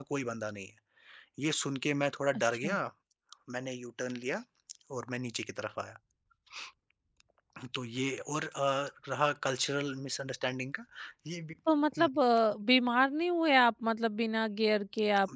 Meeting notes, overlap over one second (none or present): none